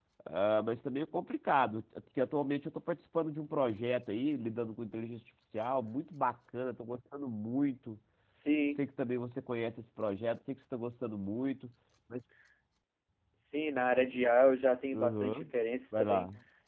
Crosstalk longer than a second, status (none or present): none